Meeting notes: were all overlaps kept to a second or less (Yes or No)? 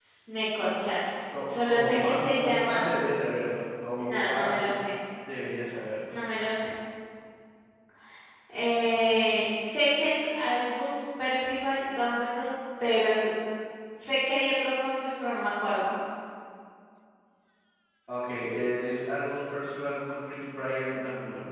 No